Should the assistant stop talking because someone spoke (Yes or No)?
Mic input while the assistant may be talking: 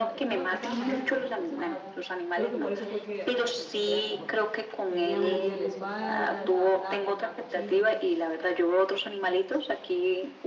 Yes